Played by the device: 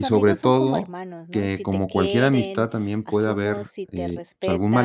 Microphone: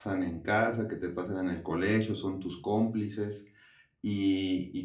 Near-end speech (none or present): present